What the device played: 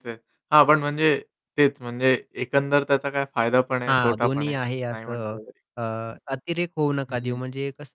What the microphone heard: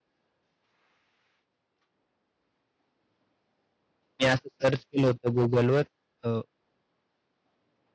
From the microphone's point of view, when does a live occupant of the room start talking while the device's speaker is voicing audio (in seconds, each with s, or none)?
4.2 s